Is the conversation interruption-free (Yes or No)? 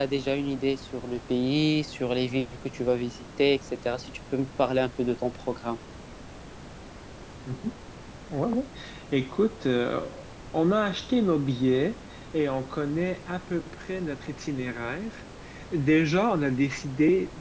Yes